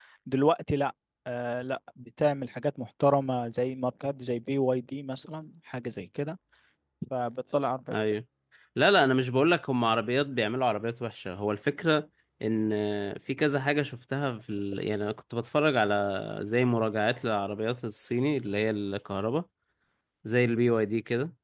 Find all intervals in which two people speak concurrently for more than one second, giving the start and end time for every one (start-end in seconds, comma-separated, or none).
none